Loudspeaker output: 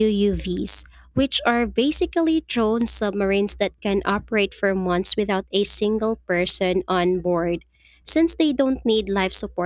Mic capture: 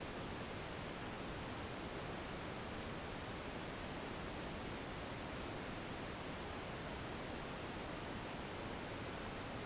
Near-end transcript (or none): none